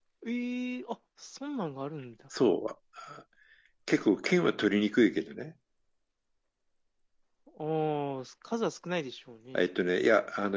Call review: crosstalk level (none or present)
none